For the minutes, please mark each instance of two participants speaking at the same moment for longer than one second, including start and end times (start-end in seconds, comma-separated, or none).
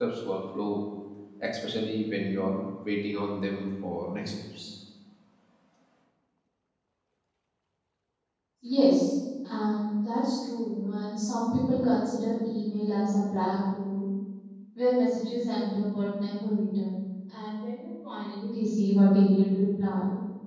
none